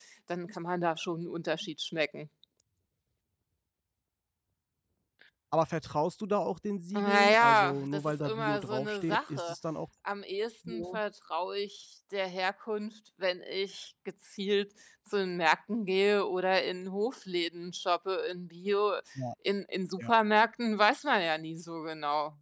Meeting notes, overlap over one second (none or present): present